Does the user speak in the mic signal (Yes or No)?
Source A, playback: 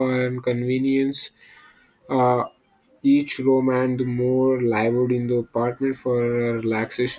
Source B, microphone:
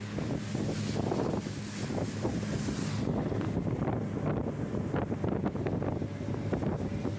No